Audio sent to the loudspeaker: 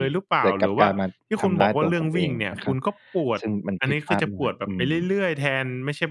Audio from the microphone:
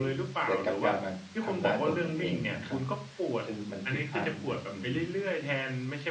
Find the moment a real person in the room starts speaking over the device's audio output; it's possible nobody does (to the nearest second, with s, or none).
none